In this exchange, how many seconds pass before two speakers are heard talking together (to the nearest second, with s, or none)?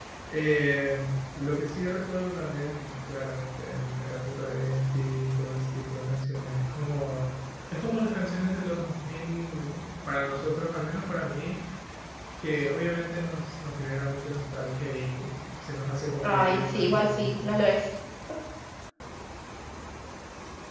16 s